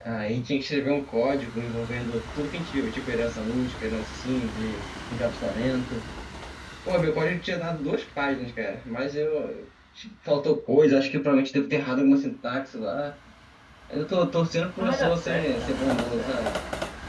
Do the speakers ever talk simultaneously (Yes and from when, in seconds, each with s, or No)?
Yes, from 14.8 s